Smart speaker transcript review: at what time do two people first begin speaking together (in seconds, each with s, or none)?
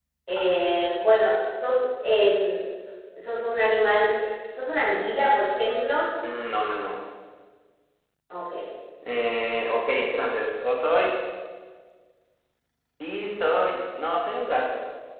none